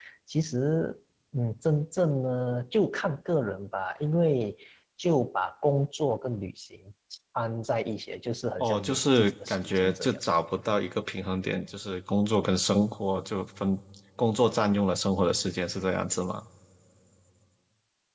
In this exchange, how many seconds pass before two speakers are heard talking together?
8.6 s

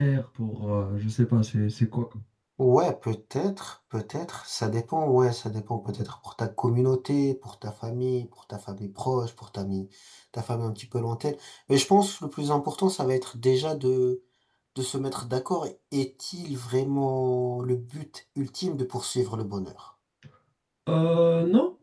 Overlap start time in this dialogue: none

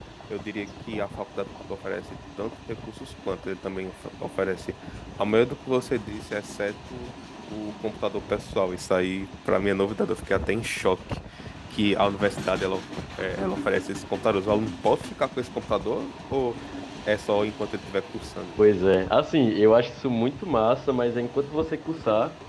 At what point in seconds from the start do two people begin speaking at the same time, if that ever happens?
none

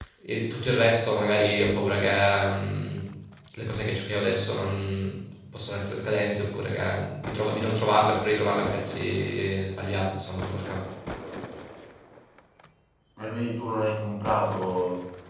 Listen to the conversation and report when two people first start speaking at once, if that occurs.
none

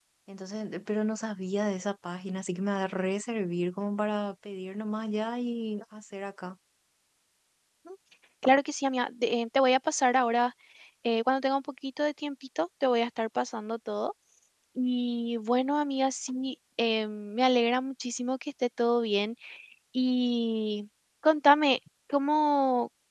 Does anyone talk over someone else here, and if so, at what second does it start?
none

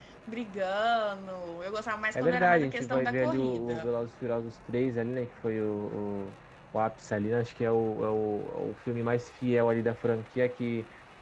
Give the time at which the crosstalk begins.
2.1 s

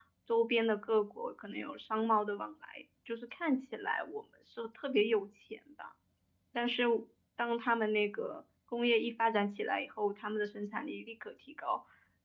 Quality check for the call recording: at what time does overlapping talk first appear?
none

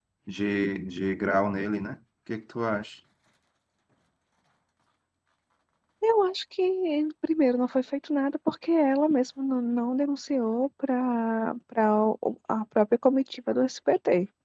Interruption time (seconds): none

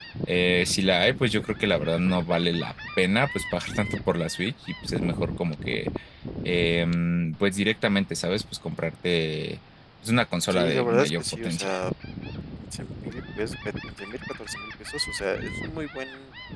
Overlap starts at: 10.5 s

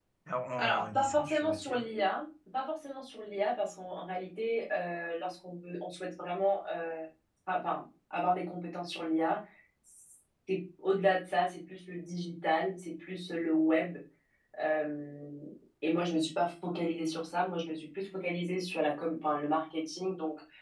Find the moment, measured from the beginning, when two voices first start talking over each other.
0.6 s

